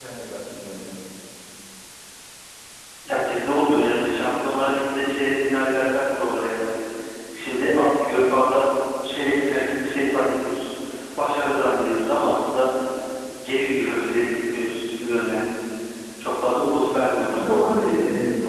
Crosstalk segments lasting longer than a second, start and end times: none

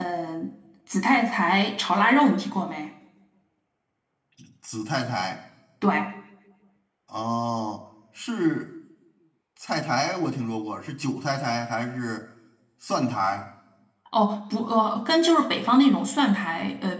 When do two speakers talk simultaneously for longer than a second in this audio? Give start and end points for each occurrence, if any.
none

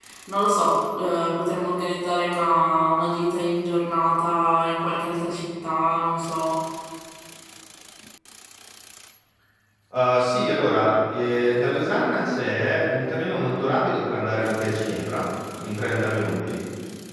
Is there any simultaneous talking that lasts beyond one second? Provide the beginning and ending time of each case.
none

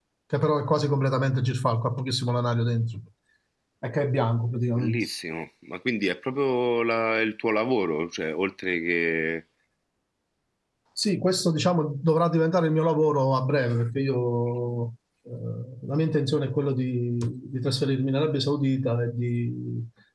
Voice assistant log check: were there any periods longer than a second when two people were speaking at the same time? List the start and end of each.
none

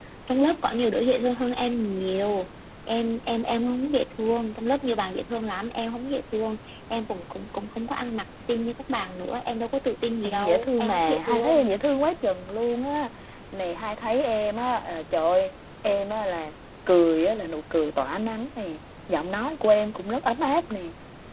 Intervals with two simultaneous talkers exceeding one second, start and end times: 10.2-11.7

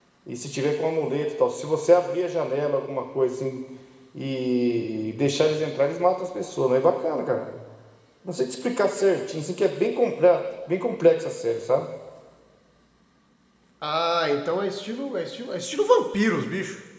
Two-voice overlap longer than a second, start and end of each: none

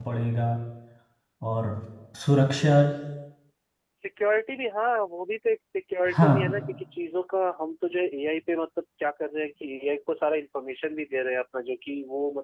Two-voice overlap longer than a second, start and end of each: none

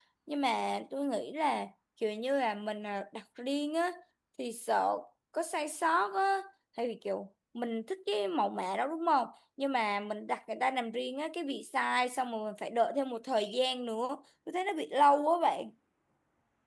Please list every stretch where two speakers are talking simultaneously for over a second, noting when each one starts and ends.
none

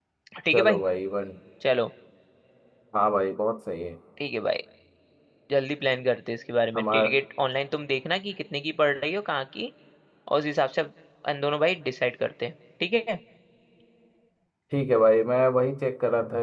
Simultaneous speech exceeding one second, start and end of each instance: none

